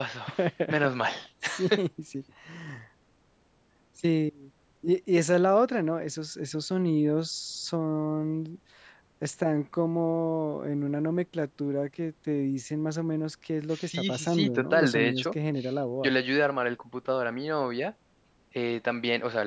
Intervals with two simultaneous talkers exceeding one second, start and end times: 13.7-15.2

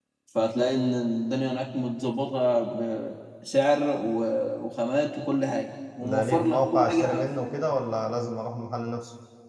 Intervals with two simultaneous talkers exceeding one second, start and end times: 6.0-7.5

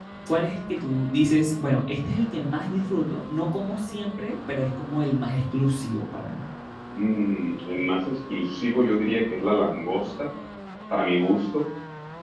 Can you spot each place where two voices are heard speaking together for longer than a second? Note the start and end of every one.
none

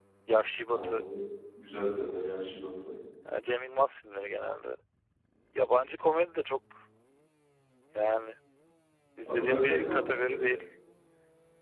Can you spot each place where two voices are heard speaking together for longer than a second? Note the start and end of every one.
9.3-10.6

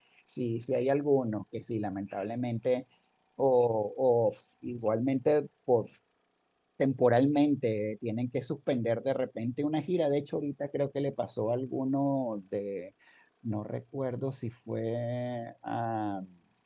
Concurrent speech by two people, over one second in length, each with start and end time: none

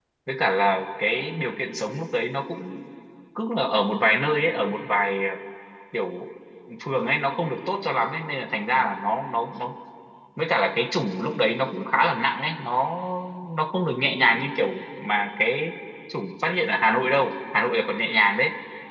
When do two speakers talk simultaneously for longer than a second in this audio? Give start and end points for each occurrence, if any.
none

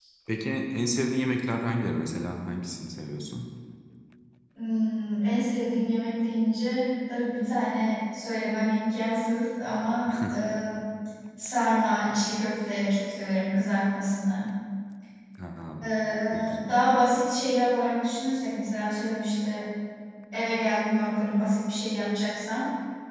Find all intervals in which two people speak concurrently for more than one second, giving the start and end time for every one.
none

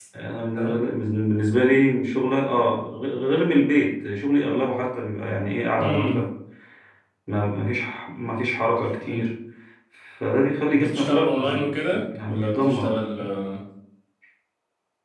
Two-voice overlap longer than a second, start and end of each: 10.7-13.0

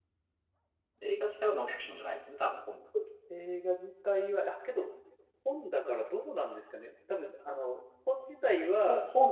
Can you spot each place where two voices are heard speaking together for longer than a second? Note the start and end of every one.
none

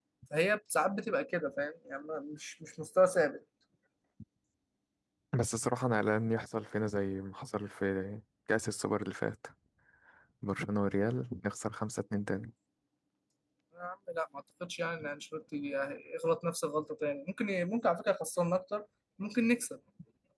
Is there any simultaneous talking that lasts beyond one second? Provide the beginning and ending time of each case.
none

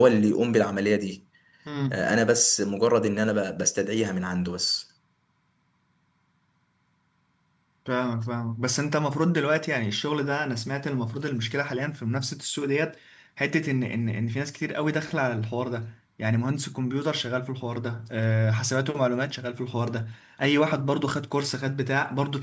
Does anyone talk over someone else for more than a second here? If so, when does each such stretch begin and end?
none

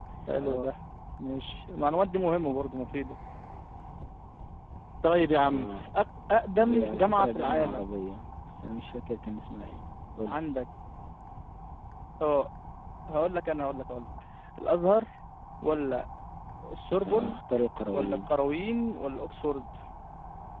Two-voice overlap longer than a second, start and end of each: 6.6-7.9

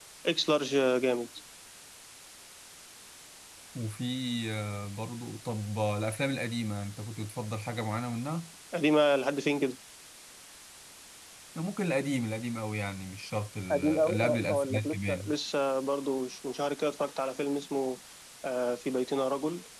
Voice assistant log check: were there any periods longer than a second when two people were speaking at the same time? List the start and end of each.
13.7-15.3

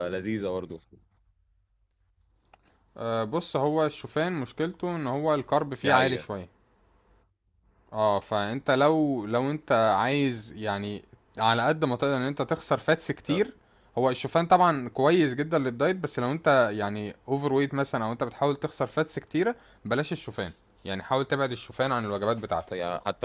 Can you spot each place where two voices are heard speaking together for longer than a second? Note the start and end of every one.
none

